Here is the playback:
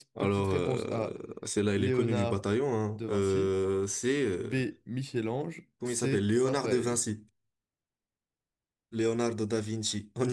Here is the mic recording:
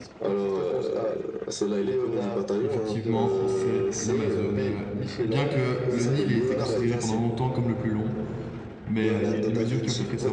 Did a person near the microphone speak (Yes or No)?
Yes